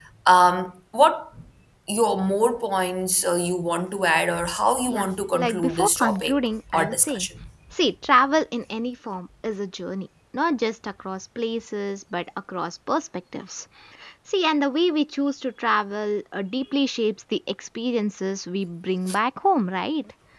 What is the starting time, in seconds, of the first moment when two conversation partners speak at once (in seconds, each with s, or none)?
4.9 s